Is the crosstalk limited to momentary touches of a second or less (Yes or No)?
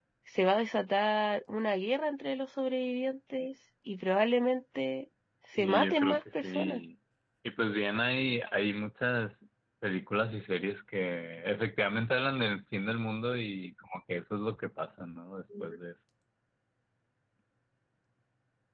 No